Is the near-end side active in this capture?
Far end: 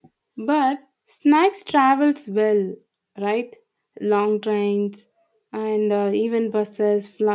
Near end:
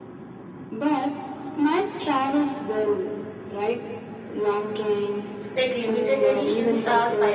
Yes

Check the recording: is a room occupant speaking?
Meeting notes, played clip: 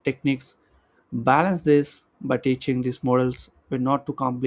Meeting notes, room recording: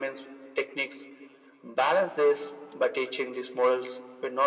No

